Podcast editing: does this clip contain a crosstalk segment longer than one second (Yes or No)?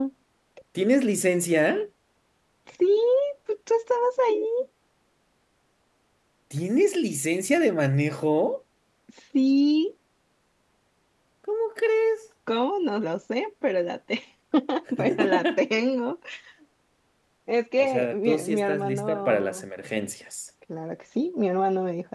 Yes